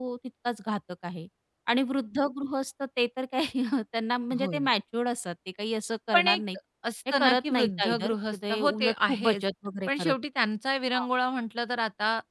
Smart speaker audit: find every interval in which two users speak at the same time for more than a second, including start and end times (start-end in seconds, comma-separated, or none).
7.2-9.4